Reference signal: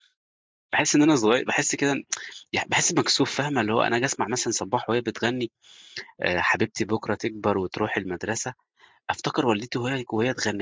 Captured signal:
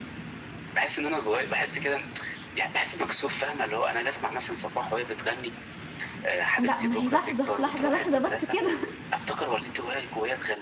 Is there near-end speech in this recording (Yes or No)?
Yes